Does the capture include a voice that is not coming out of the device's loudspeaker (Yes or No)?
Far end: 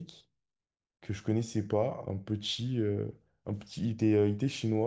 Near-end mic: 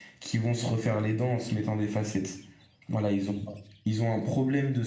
Yes